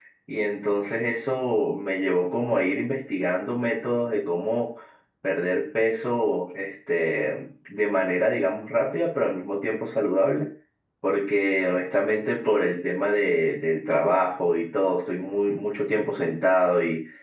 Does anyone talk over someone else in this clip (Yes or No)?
No